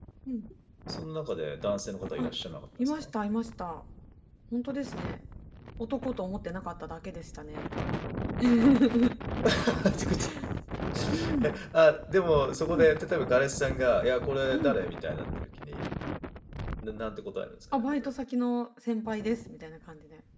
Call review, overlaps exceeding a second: none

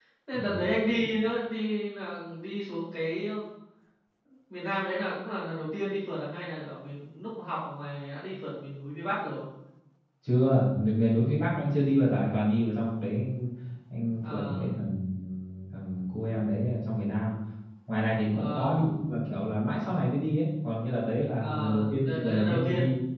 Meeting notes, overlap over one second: present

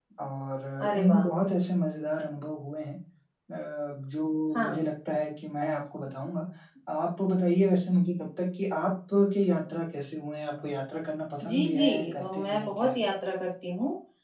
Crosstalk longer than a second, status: present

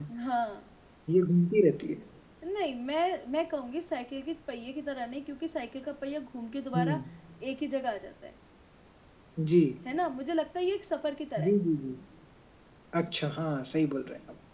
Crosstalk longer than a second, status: none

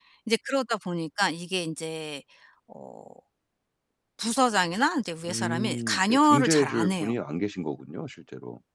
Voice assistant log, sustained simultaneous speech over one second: present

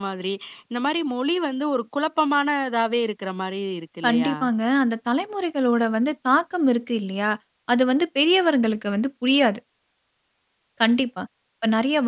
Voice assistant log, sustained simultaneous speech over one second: none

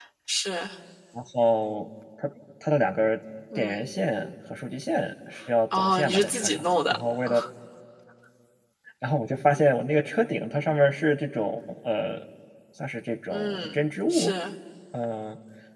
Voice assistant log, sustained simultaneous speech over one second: present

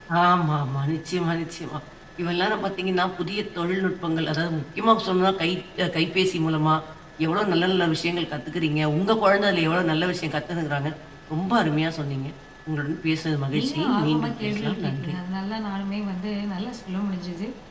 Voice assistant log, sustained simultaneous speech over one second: present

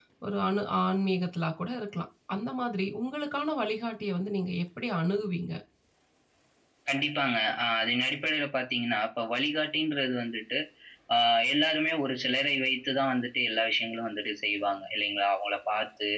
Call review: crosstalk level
none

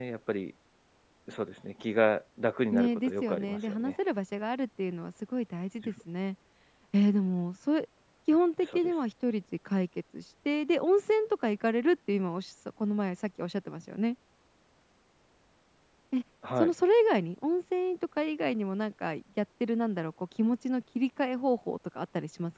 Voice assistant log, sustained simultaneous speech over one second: present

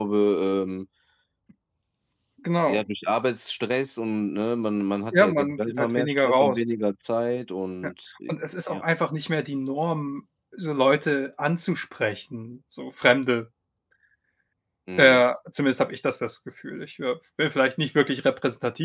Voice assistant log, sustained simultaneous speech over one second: present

